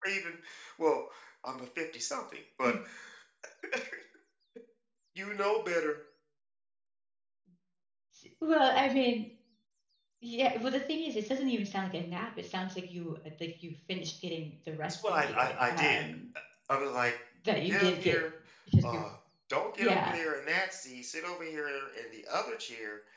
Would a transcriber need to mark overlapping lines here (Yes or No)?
Yes